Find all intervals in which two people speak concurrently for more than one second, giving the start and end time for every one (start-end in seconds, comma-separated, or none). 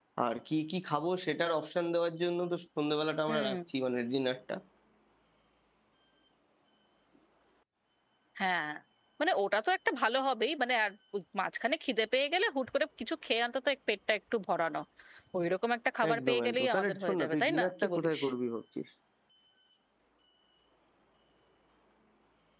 16.1-18.2